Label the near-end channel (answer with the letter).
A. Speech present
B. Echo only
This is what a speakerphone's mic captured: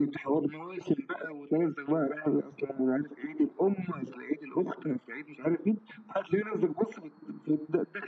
B